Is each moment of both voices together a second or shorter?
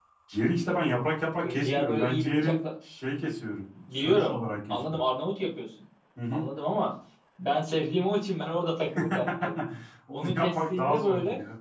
No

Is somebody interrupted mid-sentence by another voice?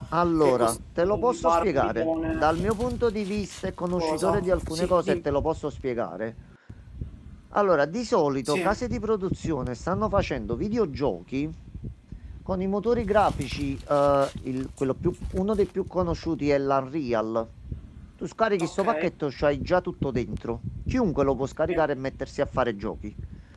Yes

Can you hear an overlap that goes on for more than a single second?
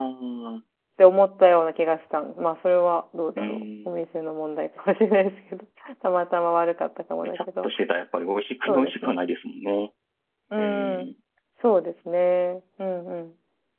No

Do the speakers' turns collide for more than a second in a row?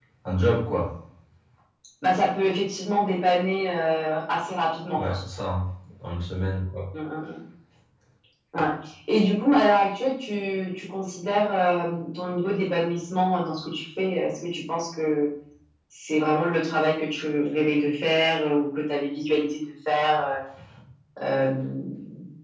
No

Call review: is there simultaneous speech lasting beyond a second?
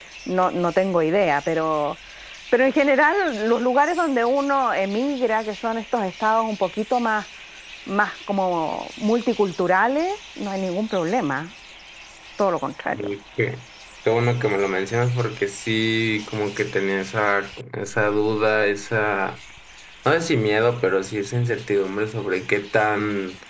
No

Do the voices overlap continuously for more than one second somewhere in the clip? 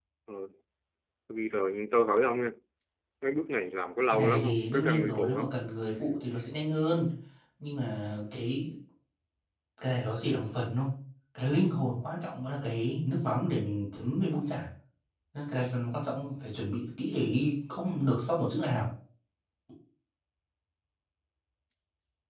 Yes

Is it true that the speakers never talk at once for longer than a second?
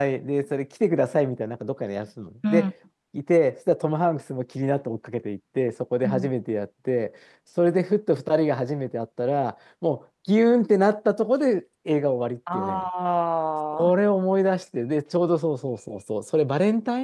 Yes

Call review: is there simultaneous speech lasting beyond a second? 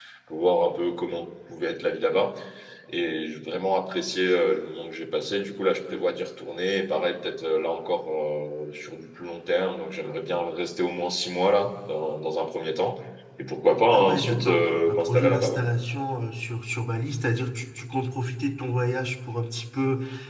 Yes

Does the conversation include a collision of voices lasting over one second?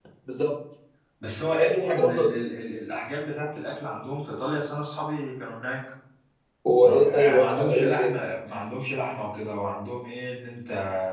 Yes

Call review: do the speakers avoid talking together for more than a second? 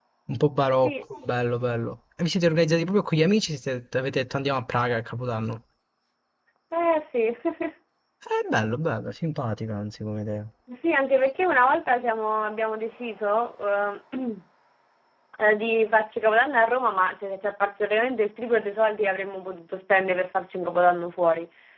Yes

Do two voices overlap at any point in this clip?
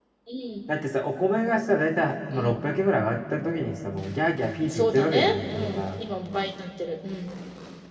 Yes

